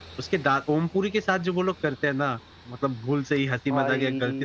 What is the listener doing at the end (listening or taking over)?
listening